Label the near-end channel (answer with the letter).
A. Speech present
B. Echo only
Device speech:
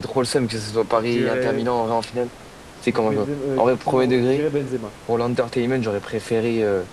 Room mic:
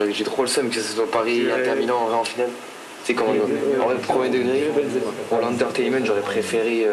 A